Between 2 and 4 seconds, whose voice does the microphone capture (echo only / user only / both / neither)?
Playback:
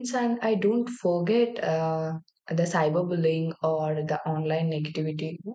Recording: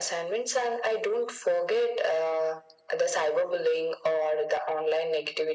echo only